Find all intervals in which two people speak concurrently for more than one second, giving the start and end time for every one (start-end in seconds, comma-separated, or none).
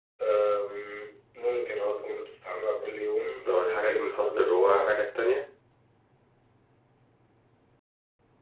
3.5-5.0